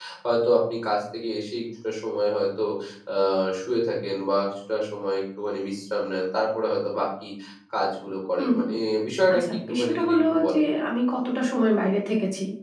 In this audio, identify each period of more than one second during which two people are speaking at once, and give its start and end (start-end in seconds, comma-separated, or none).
9.3-10.6